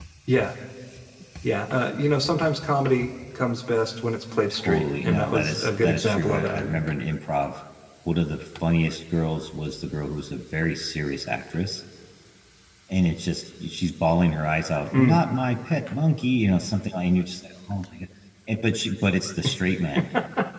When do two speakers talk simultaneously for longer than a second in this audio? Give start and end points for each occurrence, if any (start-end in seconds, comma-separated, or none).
4.5-6.8